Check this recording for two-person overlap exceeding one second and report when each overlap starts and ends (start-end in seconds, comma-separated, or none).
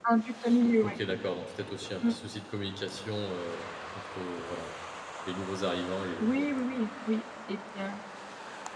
none